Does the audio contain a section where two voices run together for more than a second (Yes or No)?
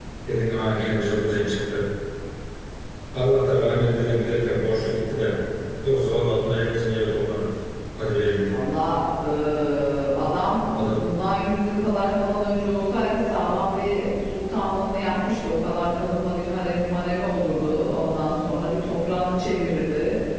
No